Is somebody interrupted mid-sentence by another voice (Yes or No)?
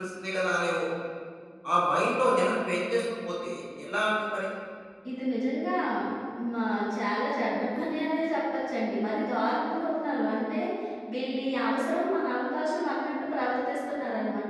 No